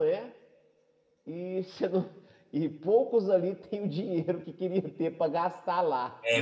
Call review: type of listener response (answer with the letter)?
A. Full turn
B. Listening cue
A